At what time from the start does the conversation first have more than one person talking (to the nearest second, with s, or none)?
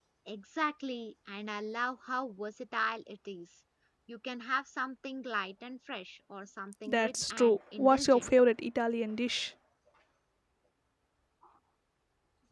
7 s